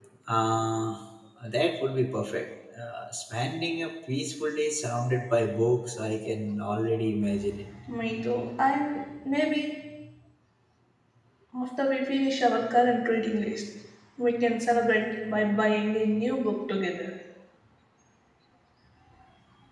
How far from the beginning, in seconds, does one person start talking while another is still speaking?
none

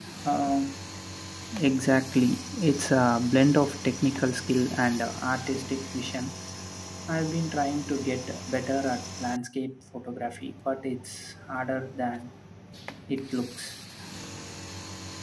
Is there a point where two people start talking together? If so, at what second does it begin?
none

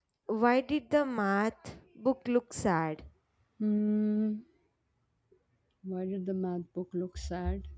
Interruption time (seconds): none

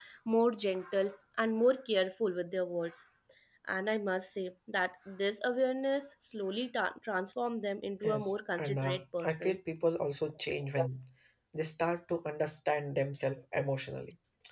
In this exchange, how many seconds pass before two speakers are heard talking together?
8.0 s

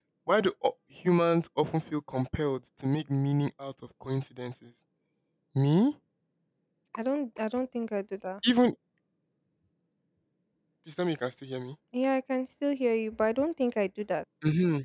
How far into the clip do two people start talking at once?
none

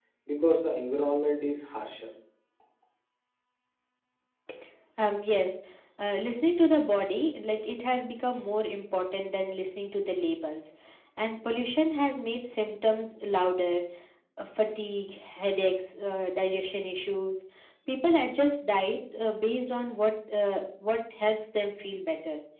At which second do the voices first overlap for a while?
none

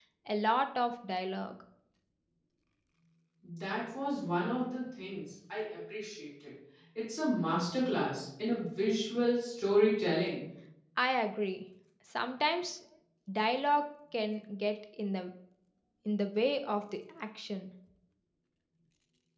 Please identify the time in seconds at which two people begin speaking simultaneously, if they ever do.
none

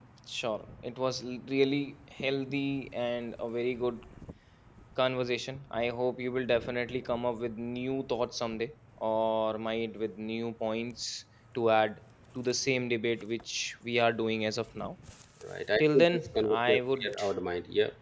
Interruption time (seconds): 15.8 s

